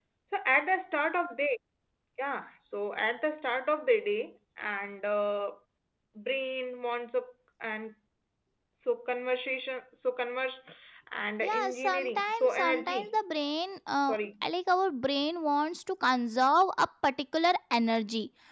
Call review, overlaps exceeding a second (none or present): present